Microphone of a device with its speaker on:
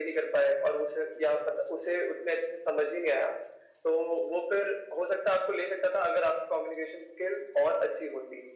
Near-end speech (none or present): none